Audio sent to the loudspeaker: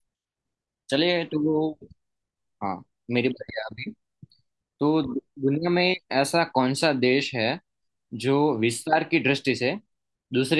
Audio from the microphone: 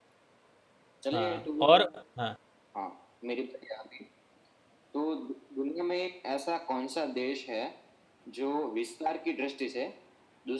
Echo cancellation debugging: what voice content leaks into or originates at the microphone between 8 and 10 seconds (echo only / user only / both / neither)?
echo only